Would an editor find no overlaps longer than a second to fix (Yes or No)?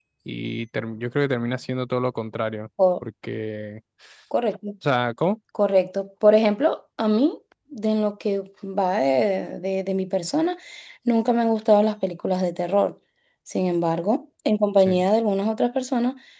Yes